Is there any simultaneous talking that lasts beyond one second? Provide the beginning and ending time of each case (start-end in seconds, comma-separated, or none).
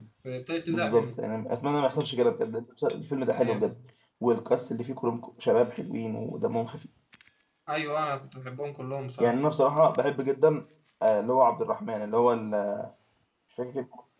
none